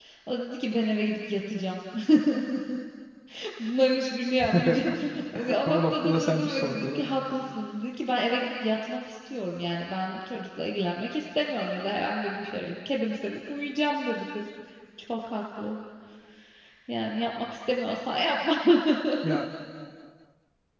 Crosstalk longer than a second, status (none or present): present